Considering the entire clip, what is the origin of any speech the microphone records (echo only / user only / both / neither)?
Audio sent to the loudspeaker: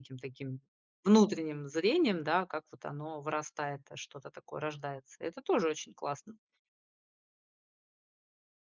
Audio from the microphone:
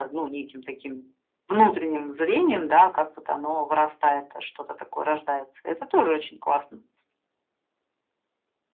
echo only